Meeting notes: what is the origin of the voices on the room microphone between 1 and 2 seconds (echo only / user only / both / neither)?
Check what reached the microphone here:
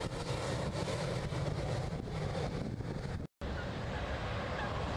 neither